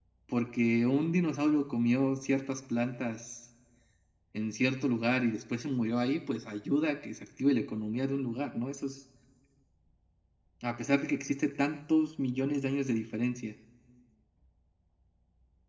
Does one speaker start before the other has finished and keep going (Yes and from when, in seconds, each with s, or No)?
No